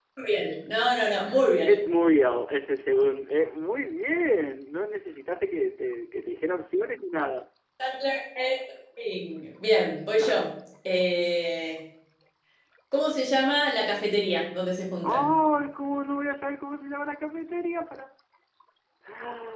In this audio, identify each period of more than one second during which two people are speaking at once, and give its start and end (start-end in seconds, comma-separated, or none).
none